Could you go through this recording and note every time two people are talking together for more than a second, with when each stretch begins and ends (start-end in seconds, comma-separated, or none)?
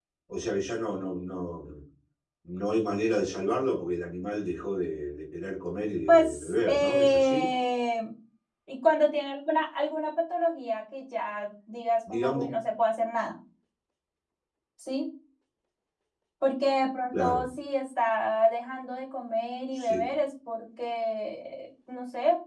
6.1-7.5